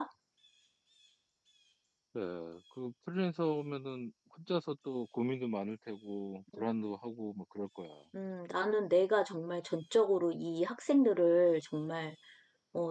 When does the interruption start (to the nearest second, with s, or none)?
none